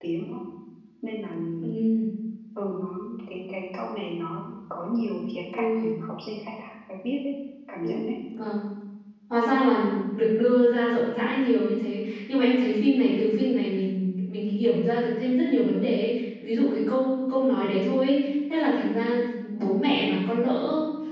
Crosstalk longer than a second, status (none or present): none